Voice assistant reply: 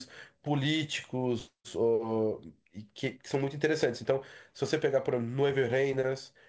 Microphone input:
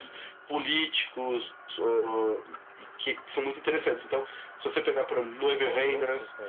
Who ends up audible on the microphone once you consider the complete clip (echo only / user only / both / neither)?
both